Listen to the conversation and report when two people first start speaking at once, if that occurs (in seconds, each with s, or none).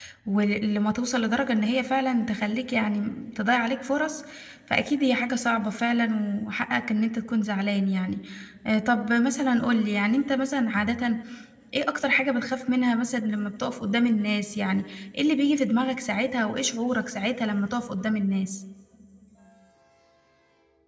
none